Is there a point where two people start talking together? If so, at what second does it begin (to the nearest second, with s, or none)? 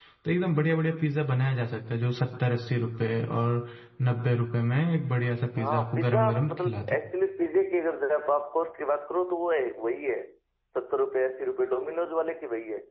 6 s